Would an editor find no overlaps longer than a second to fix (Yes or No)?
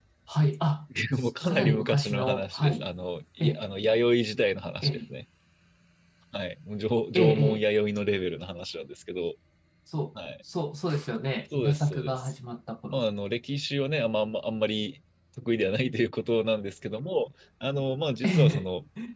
No